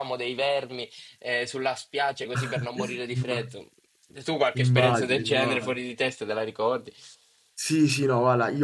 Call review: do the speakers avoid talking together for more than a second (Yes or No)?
No